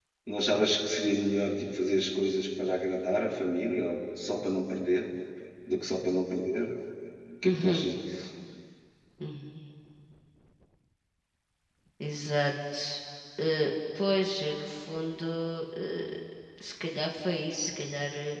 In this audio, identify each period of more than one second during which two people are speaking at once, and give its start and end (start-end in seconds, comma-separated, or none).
none